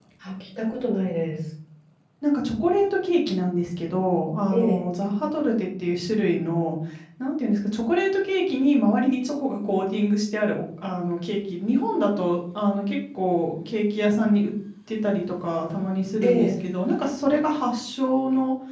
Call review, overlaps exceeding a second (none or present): none